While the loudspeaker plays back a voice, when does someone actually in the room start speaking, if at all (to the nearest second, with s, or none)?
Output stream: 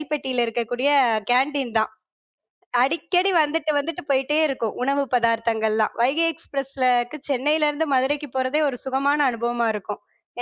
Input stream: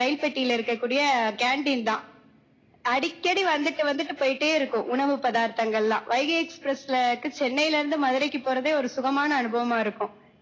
none